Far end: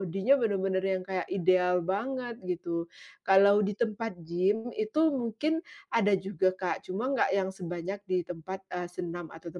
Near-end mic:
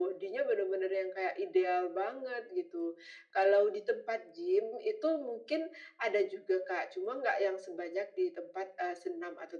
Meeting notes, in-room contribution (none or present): none